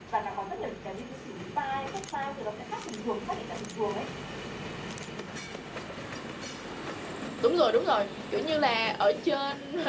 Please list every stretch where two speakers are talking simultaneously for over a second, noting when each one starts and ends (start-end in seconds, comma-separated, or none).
none